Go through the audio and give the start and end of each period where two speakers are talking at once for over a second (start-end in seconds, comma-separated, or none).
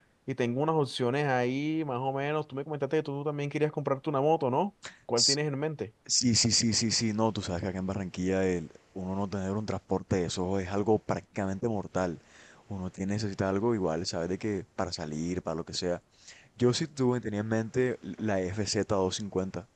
none